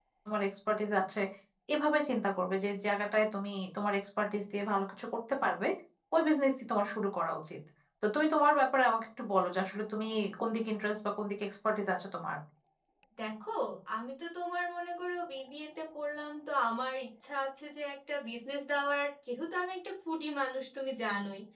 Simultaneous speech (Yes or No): No